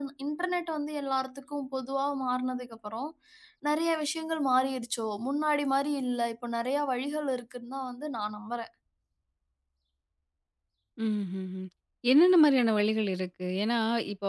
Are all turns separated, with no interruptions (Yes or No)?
Yes